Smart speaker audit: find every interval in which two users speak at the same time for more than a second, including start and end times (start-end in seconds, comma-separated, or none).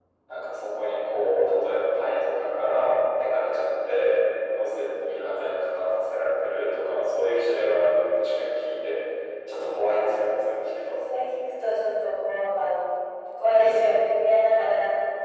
none